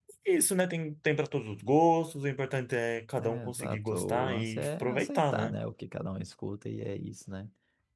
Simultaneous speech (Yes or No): Yes